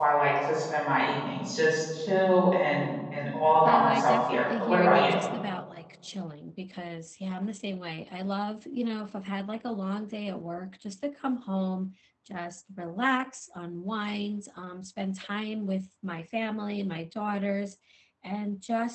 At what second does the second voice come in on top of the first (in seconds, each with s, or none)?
3.6 s